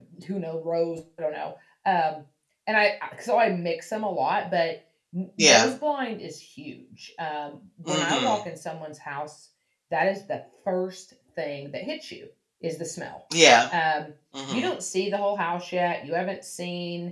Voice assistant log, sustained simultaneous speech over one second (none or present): none